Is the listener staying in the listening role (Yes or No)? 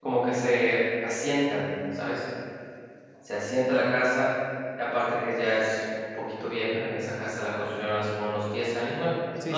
No